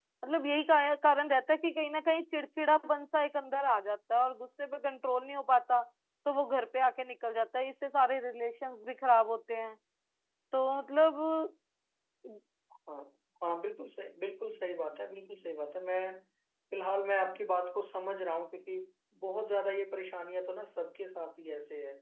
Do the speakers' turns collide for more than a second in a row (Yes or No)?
No